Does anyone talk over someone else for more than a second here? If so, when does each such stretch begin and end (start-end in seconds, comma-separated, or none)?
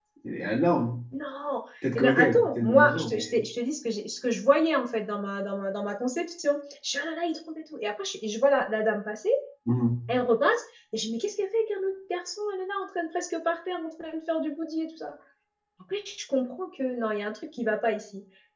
1.9-3.4